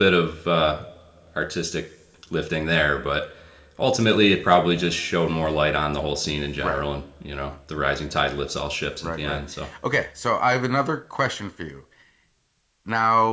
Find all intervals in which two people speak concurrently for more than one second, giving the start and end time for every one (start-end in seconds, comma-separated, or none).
none